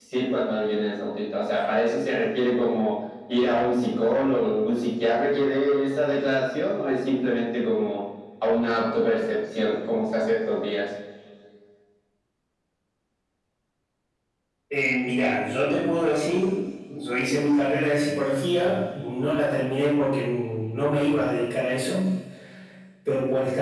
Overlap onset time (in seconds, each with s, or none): none